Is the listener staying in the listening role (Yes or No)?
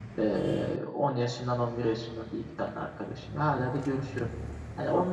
Yes